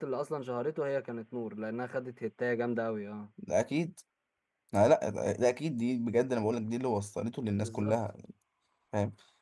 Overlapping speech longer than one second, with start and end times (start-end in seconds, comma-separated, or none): none